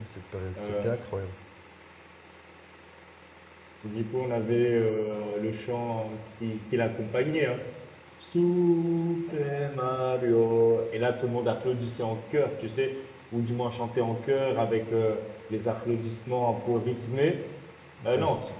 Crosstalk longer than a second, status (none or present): none